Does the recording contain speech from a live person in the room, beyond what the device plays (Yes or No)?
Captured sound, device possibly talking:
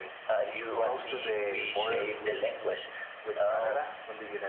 No